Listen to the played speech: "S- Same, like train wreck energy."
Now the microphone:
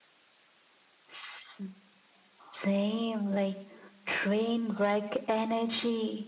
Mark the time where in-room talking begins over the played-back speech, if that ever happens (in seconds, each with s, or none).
none